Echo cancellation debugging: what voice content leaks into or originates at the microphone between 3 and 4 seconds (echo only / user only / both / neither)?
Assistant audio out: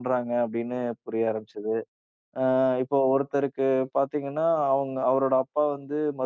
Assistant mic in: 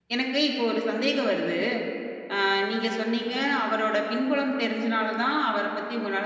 user only